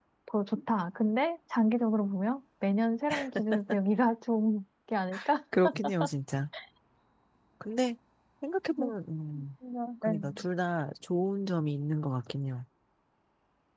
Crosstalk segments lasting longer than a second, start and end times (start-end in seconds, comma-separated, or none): none